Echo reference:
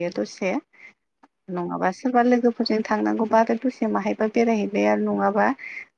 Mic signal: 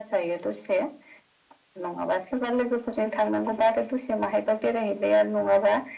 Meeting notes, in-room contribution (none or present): none